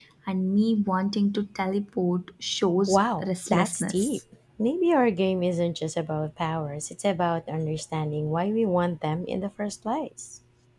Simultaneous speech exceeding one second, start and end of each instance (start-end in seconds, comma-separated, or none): 2.9-4.2